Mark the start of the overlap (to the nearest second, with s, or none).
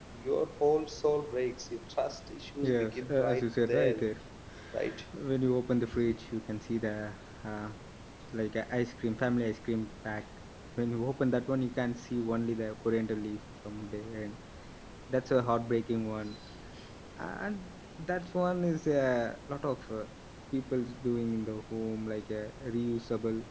3 s